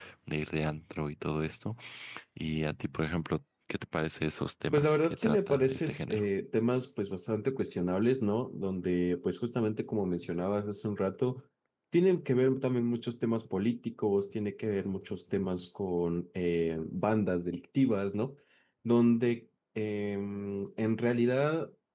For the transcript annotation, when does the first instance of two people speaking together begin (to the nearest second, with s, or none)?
5 s